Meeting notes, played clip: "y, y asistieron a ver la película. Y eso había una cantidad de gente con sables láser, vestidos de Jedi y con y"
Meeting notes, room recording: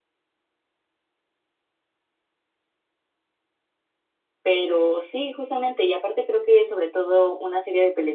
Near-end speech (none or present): present